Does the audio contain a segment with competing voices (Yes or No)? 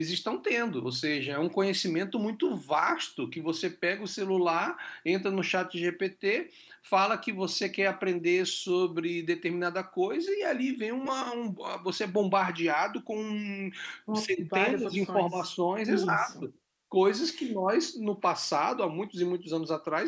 Yes